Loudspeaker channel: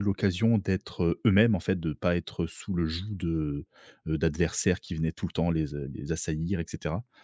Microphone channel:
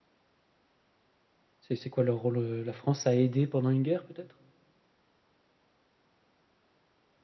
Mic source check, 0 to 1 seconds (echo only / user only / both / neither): neither